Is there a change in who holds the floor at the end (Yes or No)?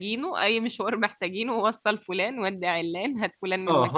Yes